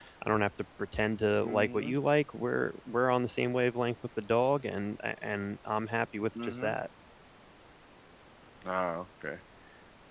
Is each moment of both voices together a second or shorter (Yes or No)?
Yes